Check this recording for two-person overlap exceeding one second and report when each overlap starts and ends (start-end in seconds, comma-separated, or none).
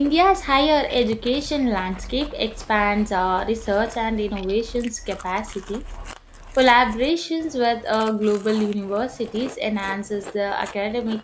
none